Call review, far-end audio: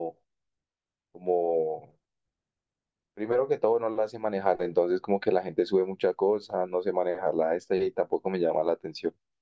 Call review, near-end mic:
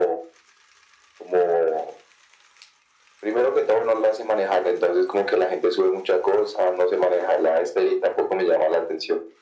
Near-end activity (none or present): none